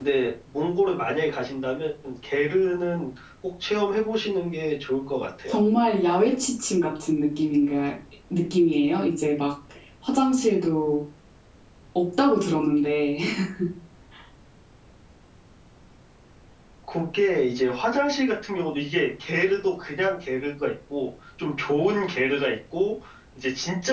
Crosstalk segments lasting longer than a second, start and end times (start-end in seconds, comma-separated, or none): none